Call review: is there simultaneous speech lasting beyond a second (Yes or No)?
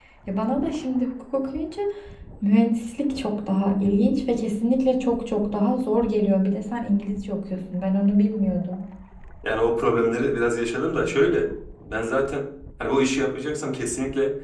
No